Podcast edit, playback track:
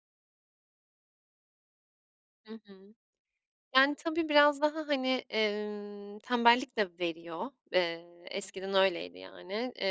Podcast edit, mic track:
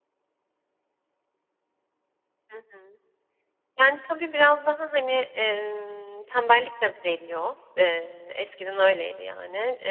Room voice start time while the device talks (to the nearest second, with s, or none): none